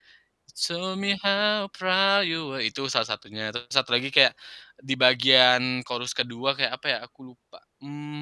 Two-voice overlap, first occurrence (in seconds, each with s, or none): none